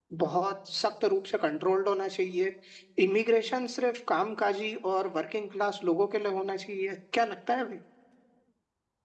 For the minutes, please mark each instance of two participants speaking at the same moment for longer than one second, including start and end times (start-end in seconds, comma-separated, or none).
none